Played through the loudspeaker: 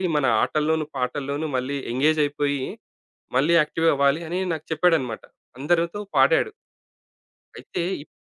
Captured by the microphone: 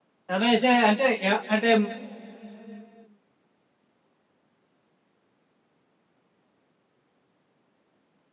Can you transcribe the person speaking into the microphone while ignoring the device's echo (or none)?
చలేసే అంటే యాహ్! అంటే